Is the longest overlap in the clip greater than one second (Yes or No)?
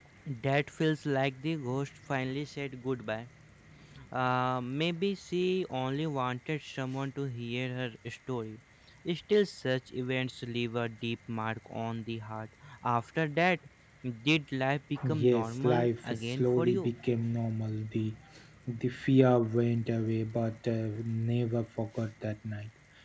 Yes